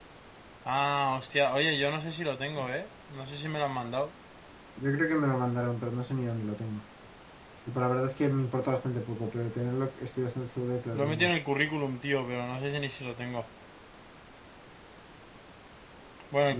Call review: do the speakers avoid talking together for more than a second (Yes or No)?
Yes